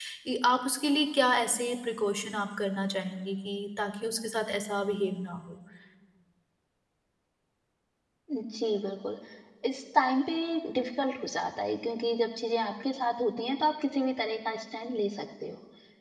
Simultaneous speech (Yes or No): No